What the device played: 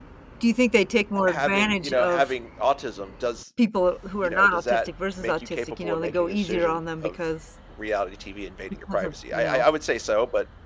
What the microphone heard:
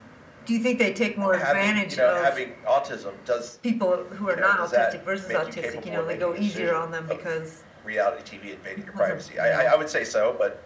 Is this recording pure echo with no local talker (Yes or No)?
Yes